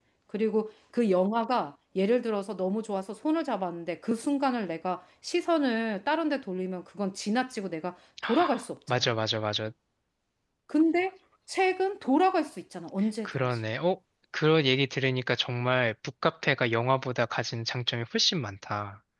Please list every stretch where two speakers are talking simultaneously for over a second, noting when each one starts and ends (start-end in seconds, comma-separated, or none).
none